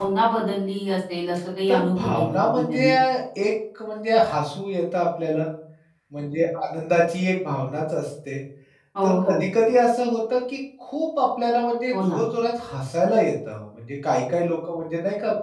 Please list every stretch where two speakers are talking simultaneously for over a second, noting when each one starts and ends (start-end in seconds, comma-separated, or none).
1.7-2.9